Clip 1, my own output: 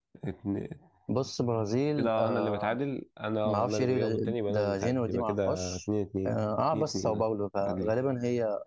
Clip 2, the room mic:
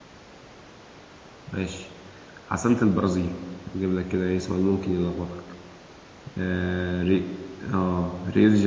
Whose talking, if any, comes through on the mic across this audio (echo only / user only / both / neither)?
user only